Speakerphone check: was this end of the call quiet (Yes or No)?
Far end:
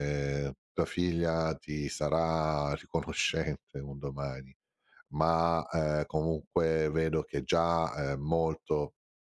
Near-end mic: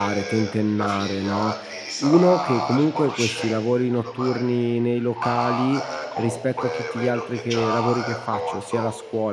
No